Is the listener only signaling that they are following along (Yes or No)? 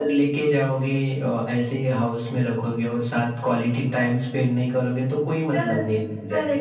No